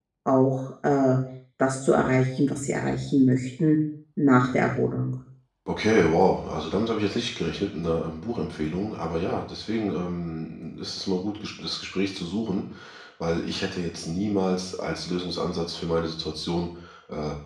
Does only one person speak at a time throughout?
Yes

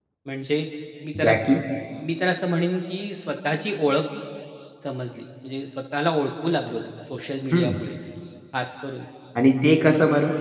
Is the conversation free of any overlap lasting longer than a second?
Yes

